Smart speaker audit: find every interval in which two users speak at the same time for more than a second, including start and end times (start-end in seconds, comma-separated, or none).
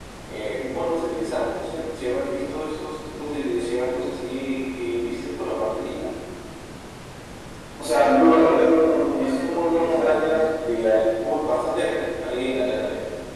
9.0-10.3